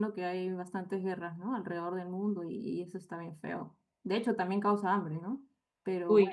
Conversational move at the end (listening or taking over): listening